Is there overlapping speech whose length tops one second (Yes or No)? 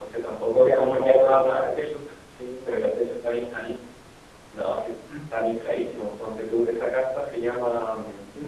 Yes